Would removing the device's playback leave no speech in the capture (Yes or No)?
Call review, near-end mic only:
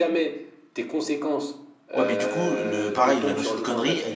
No